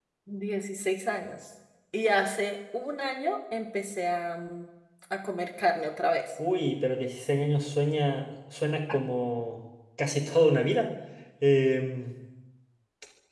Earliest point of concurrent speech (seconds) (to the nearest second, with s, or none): none